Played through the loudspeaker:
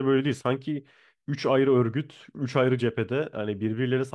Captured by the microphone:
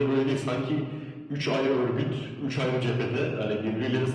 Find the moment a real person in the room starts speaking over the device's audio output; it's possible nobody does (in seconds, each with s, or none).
none